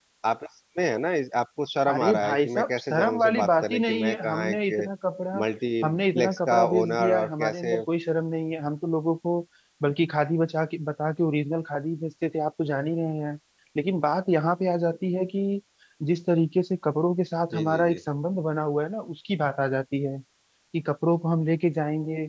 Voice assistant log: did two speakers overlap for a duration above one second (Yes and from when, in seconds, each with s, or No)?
Yes, from 1.9 s